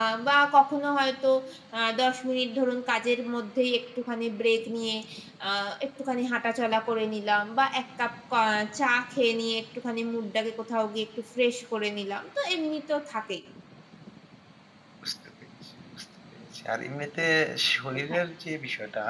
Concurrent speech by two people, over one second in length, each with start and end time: none

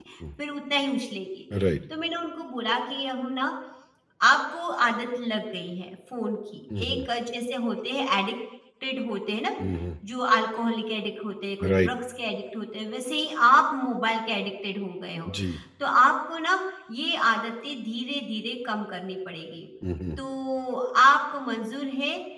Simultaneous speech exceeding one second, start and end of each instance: none

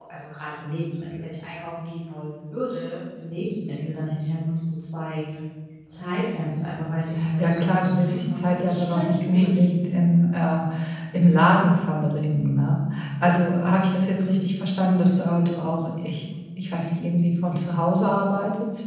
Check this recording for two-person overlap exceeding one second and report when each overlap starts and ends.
7.4-9.7

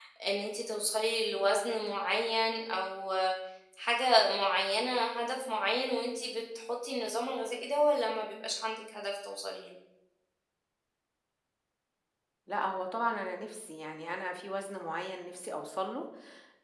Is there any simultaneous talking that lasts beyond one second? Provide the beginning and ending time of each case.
none

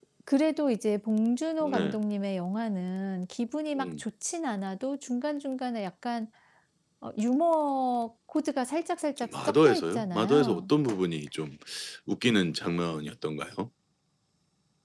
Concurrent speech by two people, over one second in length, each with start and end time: 9.3-10.7

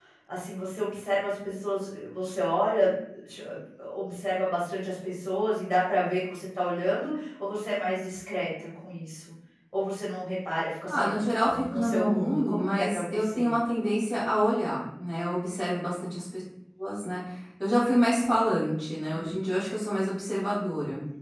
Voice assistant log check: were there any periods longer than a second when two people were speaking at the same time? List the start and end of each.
10.9-13.5

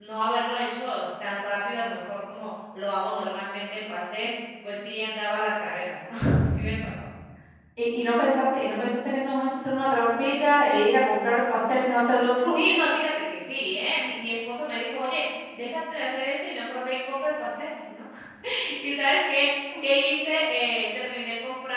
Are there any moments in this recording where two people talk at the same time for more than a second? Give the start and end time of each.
none

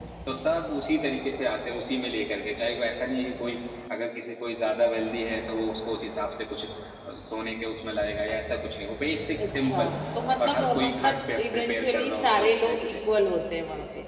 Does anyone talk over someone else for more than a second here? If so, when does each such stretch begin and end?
10.4-13.0

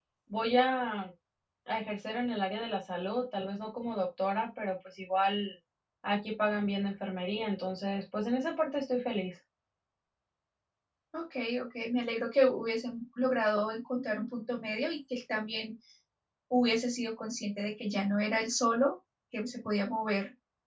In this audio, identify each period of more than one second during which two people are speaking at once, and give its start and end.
none

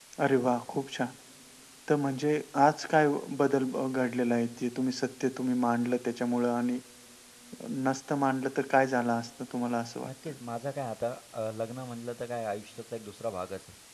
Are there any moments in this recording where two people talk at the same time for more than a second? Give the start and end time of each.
none

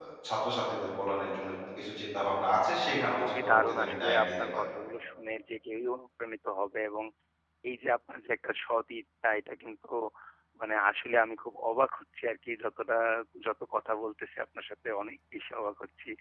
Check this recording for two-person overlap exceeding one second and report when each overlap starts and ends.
3.1-4.6

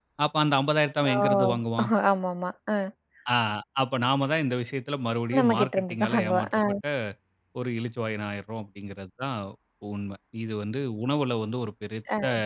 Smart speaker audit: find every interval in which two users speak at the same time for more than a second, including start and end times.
5.4-6.6

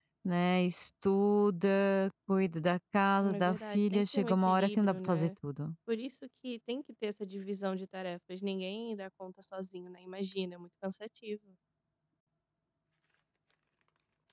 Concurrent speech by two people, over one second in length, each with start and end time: 3.2-5.3

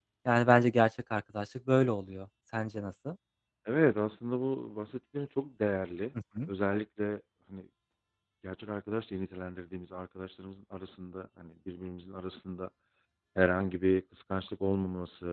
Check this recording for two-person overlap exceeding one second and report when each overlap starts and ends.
none

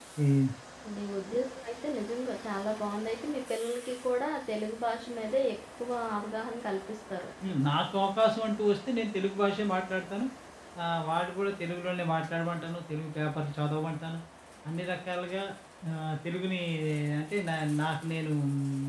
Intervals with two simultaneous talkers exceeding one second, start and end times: none

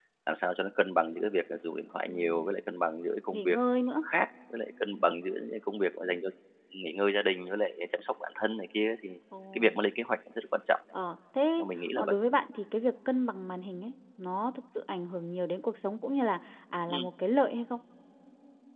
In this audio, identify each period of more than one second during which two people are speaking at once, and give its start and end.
none

